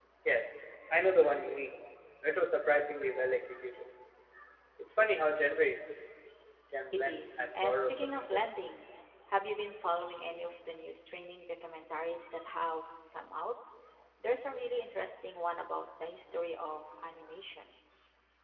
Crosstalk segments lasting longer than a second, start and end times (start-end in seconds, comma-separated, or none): 6.9-8.5